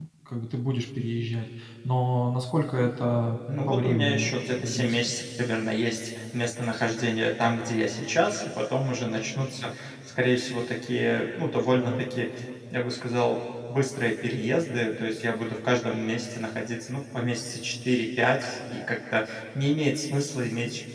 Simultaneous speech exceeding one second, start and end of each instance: 3.7-5.0

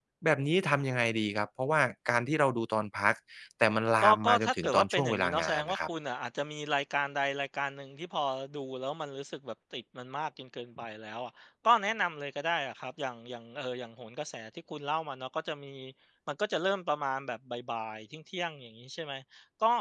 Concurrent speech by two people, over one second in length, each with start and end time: 4.1-5.8

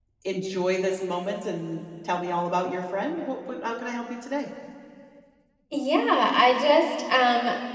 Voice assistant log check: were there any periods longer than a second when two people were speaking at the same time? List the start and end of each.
none

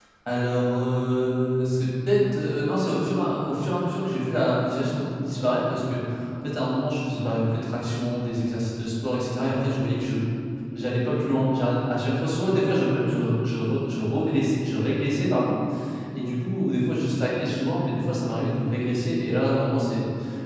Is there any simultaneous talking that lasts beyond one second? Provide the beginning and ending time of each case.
none

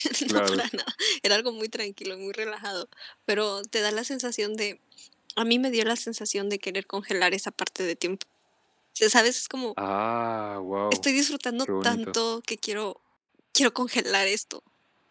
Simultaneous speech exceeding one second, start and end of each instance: none

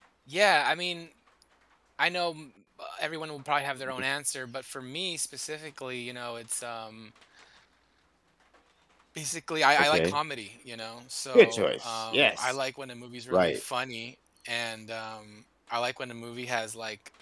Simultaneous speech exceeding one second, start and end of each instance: 11.3-12.6

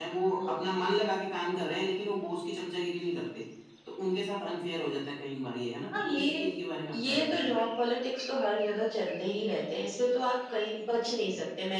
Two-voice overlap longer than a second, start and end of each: none

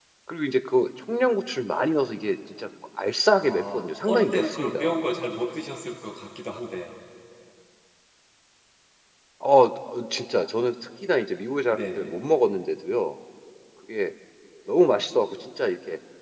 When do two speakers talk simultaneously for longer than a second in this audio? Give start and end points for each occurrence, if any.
3.4-5.0

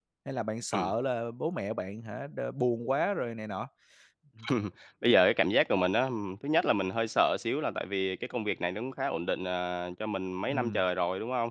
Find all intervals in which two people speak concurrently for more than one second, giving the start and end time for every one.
none

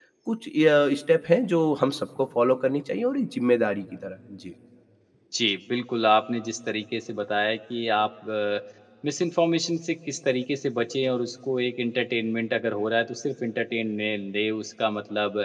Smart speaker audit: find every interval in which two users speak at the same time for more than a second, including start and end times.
none

